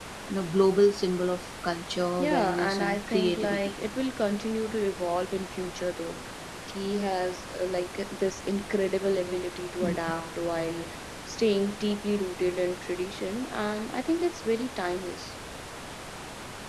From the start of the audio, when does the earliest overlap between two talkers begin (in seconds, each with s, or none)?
2.2 s